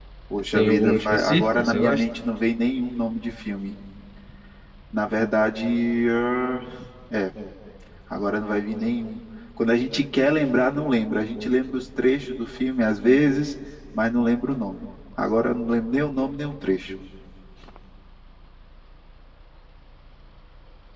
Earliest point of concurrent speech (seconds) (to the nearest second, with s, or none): 1 s